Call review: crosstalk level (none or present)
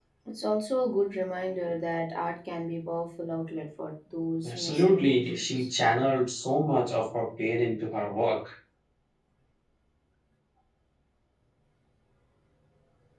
present